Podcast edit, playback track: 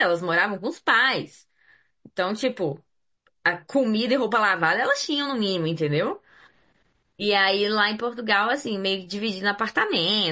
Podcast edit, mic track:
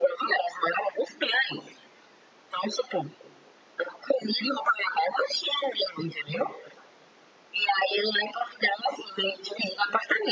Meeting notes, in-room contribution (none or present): none